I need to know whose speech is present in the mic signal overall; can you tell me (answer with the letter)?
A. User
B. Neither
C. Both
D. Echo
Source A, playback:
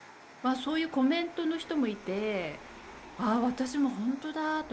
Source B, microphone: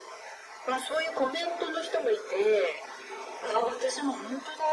D